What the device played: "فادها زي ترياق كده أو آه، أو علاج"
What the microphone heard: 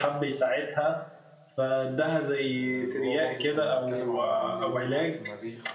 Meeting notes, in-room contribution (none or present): present